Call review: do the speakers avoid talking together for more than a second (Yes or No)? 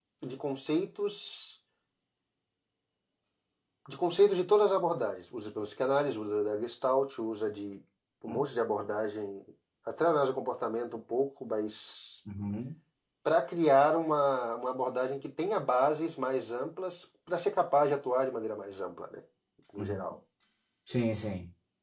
Yes